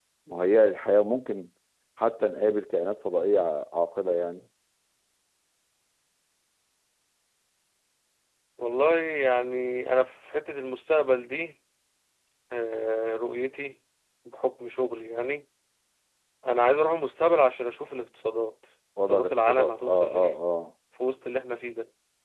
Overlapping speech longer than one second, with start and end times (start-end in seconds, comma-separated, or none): 19.1-20.3